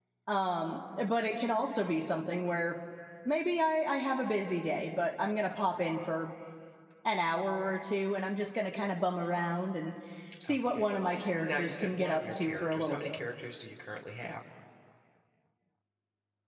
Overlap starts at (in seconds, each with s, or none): 10.5 s